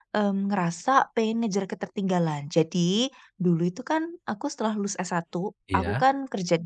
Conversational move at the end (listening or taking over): listening